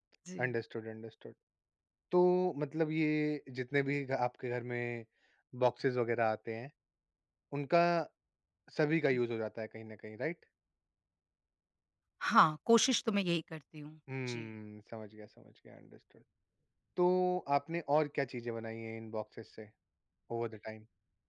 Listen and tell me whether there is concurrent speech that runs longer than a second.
No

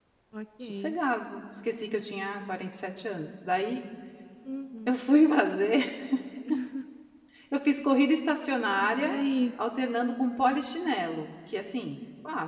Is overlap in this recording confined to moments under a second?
Yes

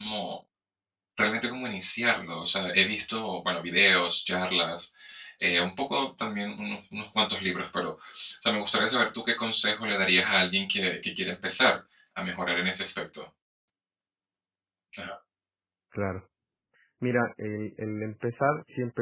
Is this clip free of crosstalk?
Yes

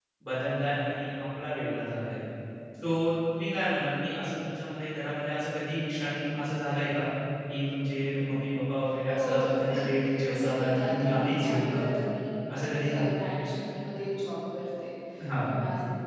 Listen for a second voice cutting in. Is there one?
Yes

